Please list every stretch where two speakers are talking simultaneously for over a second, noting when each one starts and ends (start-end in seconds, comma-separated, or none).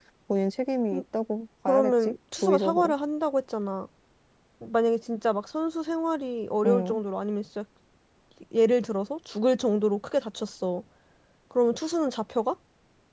1.7-2.9